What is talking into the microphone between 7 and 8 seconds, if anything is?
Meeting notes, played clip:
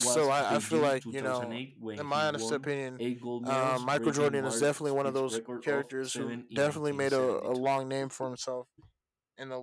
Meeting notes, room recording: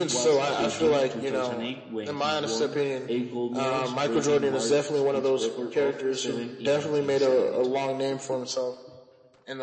echo only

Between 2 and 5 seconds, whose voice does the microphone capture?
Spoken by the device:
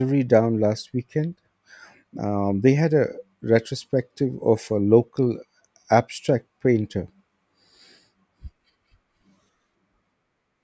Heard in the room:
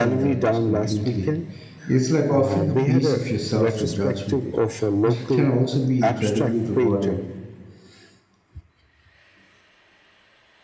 both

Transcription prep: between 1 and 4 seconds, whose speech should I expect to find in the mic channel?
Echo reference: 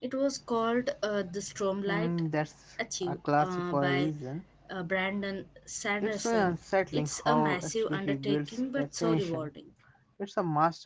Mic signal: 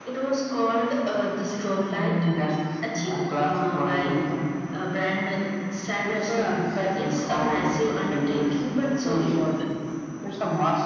echo only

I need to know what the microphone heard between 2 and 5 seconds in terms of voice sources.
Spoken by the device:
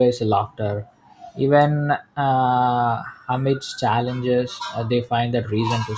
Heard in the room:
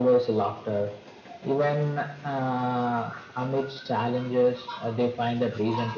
echo only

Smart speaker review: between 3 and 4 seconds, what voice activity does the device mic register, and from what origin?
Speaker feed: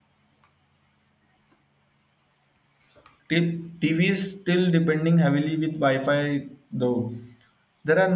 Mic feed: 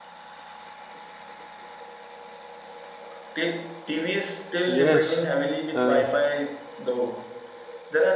echo only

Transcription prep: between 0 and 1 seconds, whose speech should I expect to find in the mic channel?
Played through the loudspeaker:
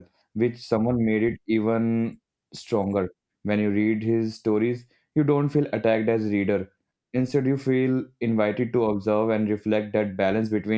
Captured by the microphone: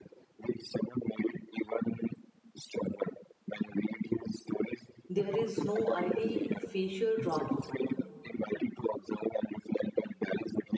echo only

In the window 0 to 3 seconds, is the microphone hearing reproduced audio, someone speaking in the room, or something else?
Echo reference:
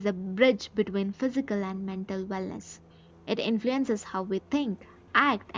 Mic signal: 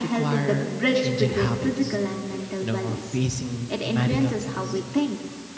both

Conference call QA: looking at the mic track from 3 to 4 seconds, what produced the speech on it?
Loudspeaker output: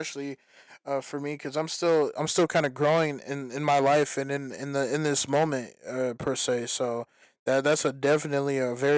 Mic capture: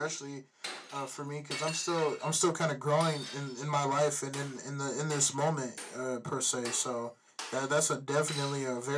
echo only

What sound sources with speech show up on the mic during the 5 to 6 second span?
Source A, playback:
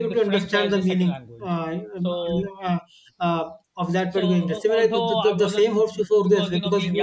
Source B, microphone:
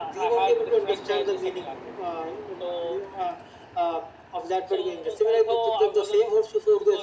echo only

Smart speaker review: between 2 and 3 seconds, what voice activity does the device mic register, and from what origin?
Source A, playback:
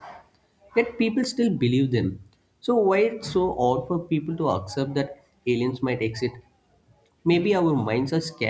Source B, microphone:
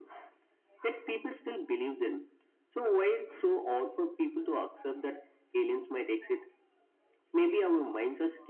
echo only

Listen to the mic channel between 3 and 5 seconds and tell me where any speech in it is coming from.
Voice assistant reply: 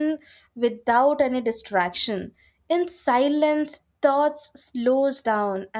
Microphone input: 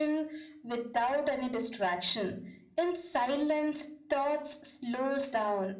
echo only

